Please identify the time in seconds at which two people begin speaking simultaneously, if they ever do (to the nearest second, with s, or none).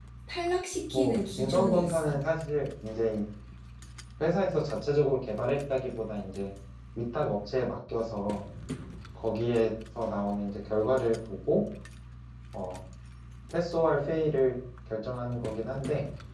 1 s